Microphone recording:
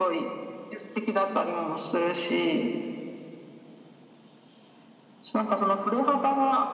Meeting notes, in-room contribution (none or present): none